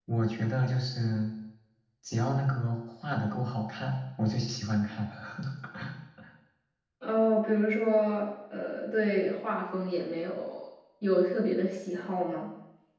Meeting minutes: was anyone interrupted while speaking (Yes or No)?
No